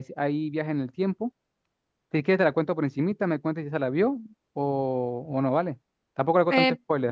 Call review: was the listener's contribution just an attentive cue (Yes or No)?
No